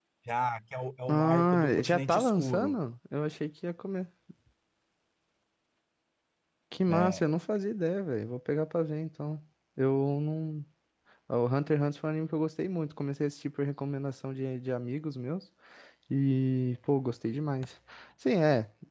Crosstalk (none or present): present